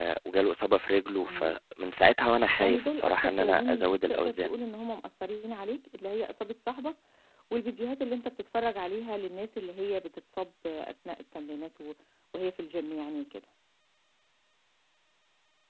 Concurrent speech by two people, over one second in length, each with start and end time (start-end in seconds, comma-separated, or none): 2.6-4.5